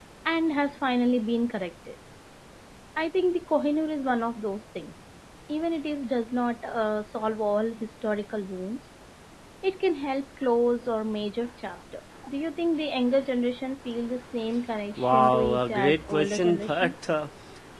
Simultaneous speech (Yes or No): Yes